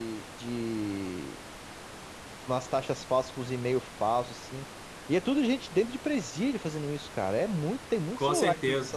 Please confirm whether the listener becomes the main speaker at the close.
Yes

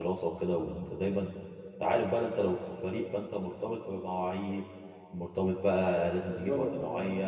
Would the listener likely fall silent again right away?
Yes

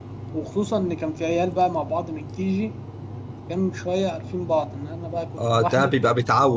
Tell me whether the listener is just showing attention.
No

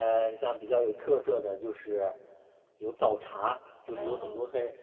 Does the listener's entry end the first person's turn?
No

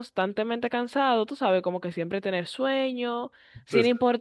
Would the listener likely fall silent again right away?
Yes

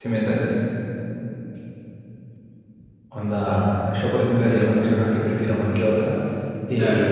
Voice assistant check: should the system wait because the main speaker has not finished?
Yes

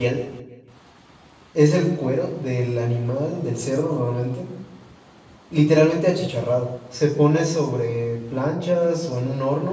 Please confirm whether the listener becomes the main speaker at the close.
No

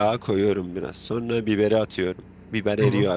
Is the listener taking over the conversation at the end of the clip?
No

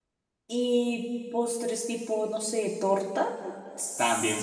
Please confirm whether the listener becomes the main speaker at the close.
Yes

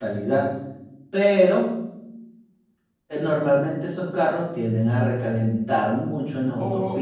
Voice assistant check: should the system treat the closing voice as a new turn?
Yes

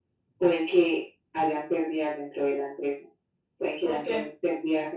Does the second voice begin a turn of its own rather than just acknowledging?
No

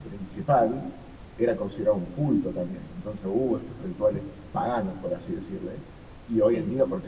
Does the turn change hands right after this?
No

